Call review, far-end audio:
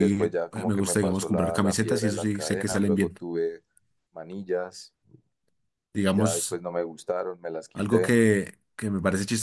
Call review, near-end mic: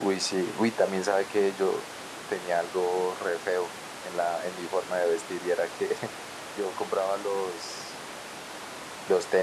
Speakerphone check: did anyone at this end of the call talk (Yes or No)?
Yes